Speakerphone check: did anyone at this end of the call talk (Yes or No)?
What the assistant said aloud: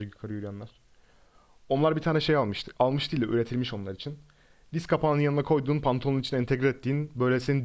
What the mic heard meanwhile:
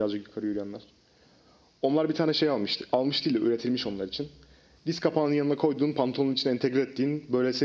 No